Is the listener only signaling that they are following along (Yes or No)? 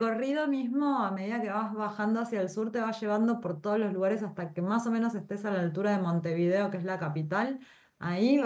Yes